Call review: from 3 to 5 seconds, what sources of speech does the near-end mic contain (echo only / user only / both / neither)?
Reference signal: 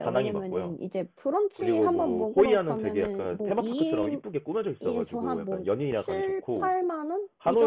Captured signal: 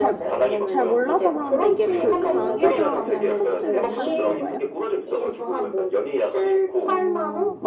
both